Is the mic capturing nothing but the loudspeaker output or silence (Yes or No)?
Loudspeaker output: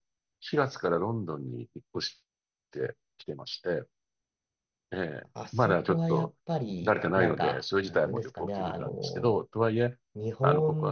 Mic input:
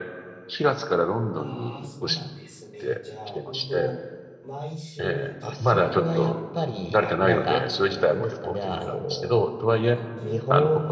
No